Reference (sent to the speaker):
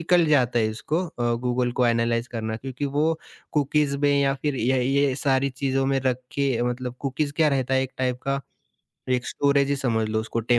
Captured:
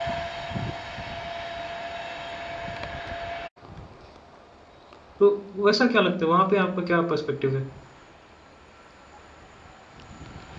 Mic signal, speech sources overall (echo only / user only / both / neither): user only